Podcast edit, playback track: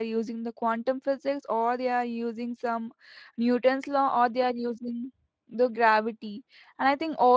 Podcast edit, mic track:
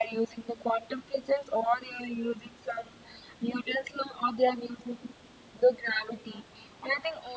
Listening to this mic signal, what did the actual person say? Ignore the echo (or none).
none